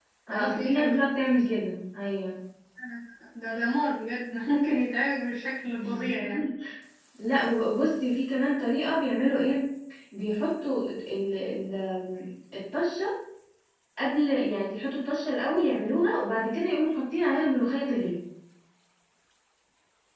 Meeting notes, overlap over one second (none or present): present